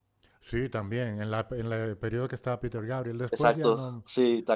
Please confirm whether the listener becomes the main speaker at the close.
Yes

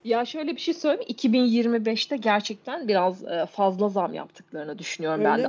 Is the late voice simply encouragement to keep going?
Yes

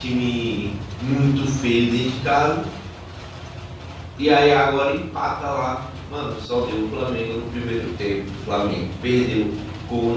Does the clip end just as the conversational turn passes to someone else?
No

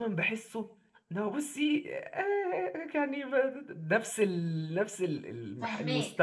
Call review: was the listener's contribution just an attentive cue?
No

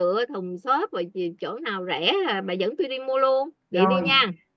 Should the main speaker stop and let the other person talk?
Yes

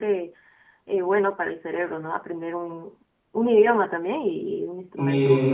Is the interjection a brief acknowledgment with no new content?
No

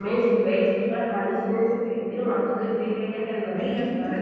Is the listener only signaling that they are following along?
No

